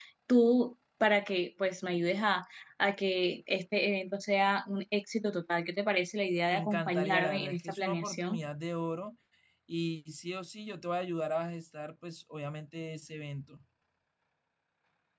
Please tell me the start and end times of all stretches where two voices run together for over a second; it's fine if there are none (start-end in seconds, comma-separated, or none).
6.5-8.4